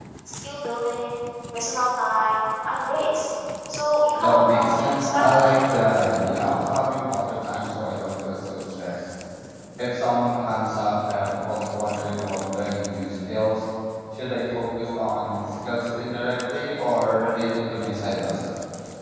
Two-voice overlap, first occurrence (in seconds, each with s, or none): 4.1 s